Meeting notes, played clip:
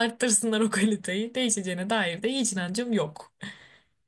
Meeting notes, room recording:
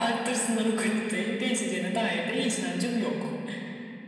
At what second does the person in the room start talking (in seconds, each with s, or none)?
none